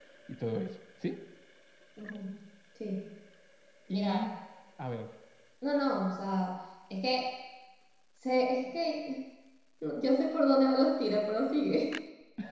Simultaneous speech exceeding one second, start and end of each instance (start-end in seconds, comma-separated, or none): none